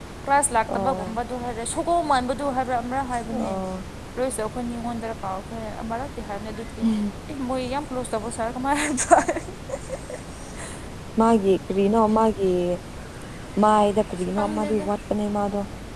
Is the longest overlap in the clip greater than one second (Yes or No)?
No